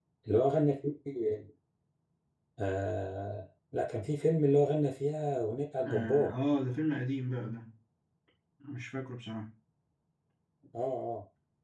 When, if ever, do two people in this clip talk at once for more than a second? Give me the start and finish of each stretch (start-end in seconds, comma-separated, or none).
none